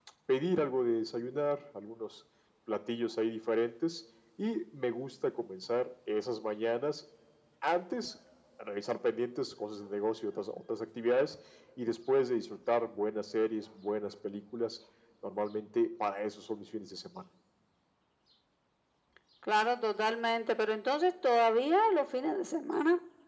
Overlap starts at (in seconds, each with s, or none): none